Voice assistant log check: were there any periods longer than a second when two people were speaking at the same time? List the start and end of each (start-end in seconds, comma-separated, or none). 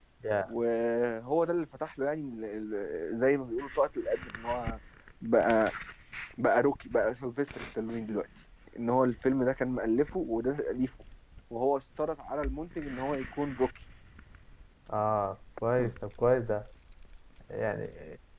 none